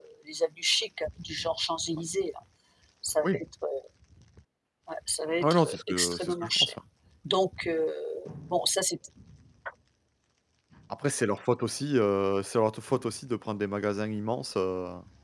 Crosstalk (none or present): present